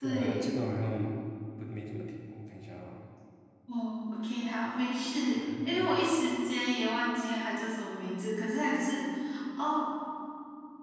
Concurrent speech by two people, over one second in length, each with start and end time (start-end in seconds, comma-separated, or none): none